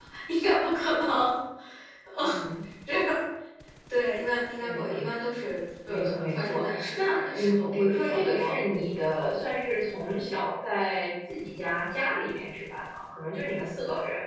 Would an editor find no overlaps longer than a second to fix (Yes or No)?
No